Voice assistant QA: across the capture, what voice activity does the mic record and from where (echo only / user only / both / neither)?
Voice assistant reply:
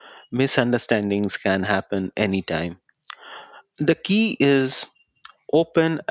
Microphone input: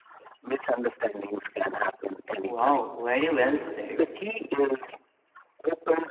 both